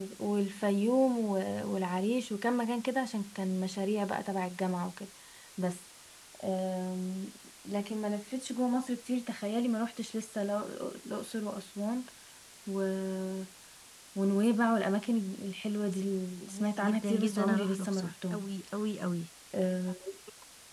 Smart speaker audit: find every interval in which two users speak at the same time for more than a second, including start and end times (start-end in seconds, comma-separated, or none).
16.5-18.4